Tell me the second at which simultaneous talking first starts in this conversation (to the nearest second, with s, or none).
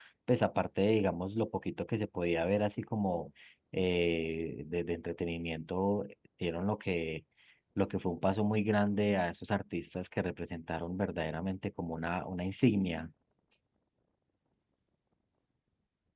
none